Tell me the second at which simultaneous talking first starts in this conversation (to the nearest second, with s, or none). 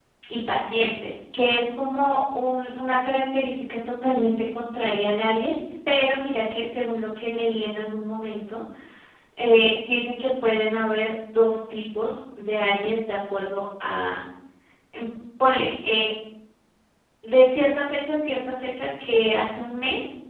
none